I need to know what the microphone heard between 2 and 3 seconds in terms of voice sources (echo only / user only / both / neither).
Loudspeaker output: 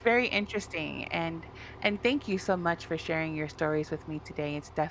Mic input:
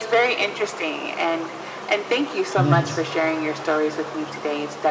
both